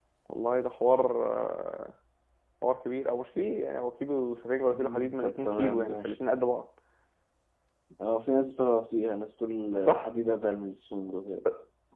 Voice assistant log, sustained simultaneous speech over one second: present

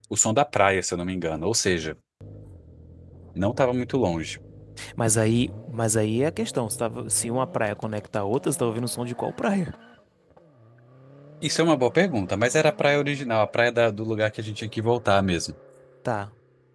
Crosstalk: none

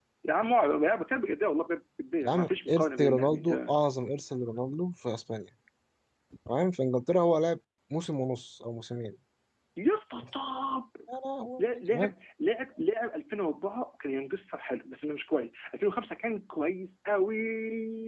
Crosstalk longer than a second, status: present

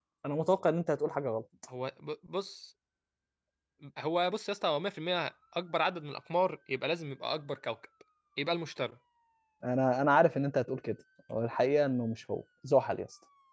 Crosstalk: none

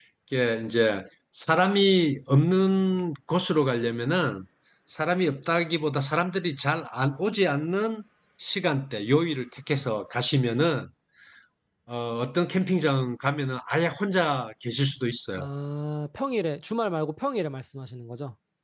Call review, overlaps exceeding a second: none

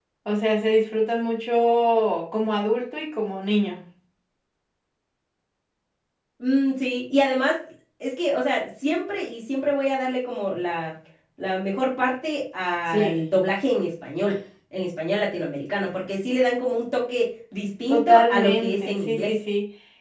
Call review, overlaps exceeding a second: present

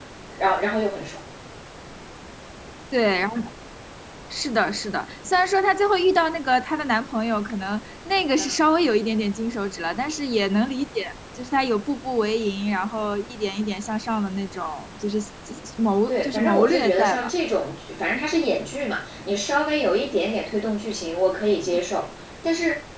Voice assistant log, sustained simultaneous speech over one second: present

